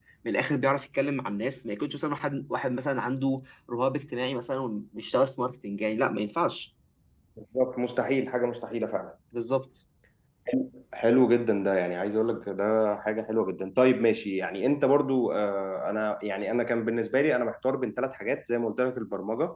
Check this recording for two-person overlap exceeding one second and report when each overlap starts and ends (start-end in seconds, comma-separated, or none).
none